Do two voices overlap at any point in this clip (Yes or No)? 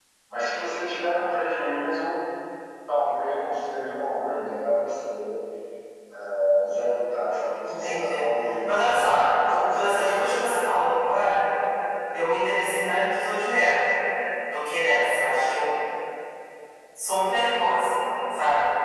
Yes